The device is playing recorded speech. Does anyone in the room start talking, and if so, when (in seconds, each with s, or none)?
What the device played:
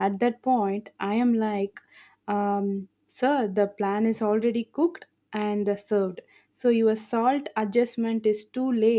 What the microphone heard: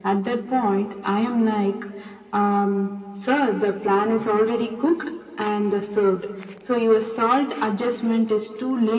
none